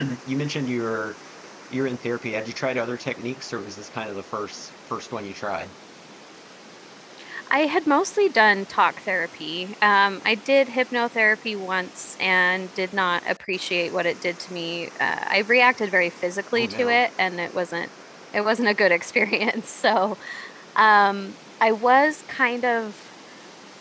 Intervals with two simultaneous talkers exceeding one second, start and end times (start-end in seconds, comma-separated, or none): none